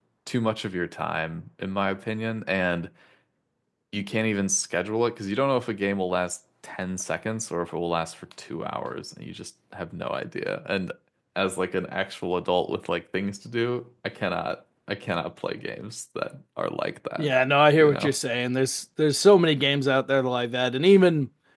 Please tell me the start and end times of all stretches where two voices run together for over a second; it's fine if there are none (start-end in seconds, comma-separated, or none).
none